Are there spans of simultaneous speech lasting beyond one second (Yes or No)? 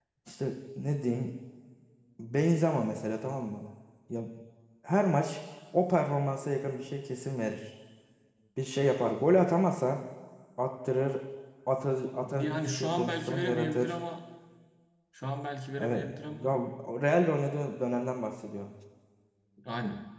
Yes